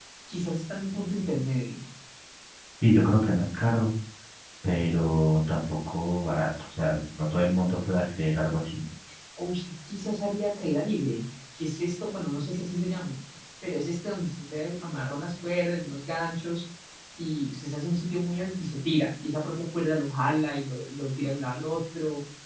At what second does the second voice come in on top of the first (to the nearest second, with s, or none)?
none